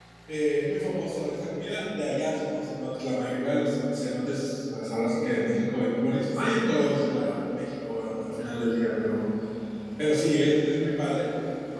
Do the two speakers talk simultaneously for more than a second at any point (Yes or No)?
No